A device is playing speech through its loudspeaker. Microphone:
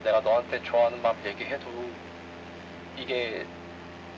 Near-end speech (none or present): none